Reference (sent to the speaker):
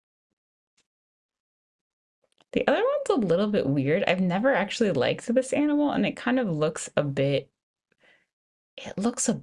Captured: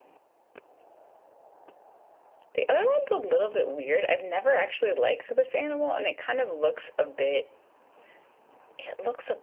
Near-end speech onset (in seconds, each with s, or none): none